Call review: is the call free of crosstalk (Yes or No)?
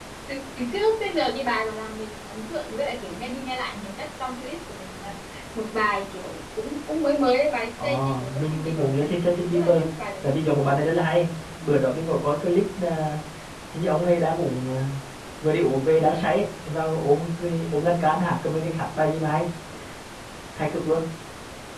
No